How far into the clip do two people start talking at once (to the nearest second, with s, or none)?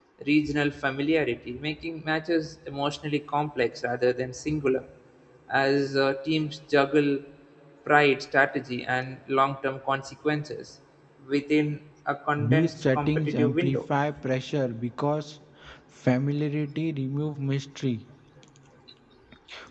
12 s